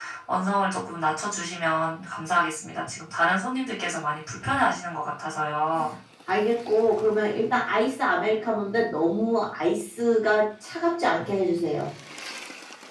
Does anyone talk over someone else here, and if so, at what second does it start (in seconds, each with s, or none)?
none